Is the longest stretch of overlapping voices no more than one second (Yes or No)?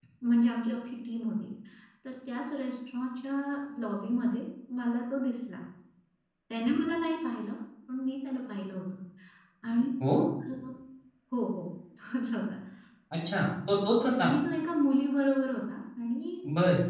Yes